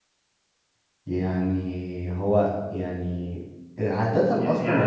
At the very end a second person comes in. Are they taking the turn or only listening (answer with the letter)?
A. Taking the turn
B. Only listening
A